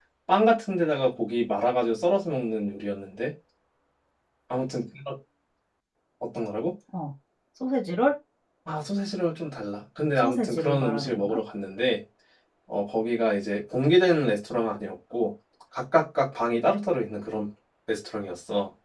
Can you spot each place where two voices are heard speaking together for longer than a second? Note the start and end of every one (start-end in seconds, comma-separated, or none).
10.2-11.4